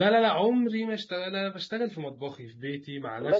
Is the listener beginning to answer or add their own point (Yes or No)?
No